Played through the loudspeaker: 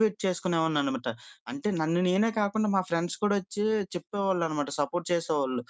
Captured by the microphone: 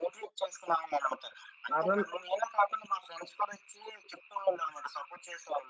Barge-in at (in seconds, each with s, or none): 1.7 s